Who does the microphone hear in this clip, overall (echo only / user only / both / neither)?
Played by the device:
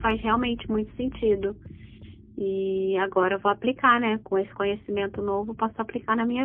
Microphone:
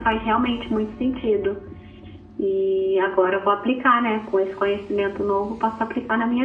echo only